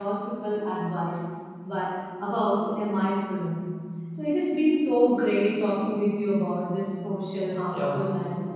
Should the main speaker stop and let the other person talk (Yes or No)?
No